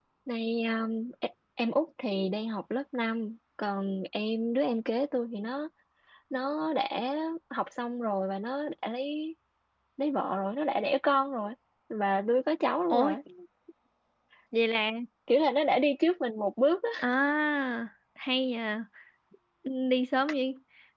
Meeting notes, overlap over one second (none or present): none